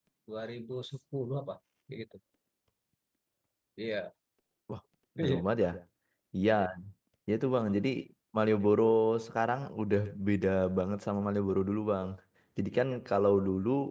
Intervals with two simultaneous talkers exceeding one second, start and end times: none

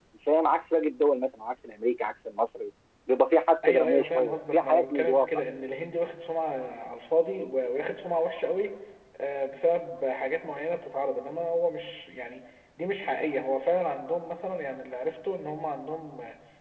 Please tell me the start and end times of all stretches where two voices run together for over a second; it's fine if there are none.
3.6-5.3

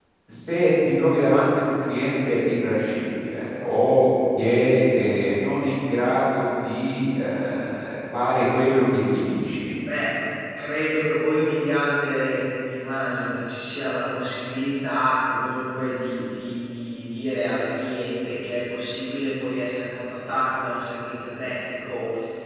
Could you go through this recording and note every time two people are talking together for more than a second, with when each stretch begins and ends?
none

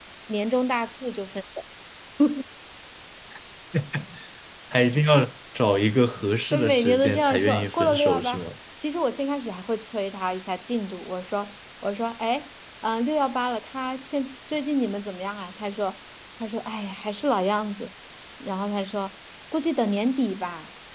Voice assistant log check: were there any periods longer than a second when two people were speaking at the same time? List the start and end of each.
6.5-8.4

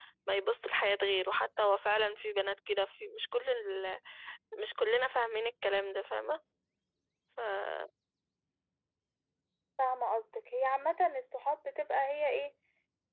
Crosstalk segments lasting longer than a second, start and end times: none

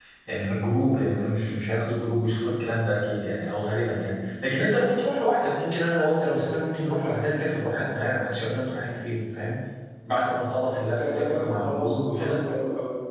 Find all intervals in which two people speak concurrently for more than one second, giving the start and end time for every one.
11.0-12.4

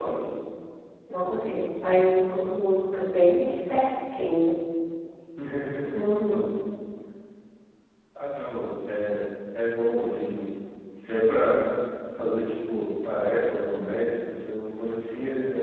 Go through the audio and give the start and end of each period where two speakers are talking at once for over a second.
none

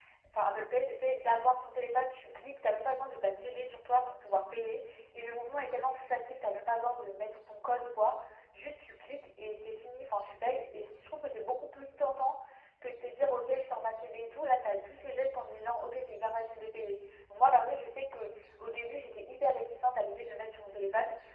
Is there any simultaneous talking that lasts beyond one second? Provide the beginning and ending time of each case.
none

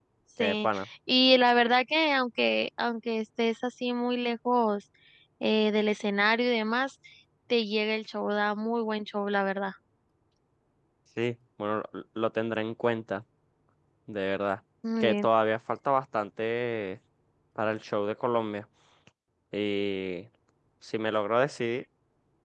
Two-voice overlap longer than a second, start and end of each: none

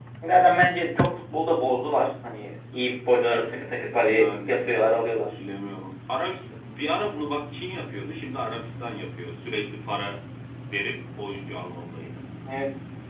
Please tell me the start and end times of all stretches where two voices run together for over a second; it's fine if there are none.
none

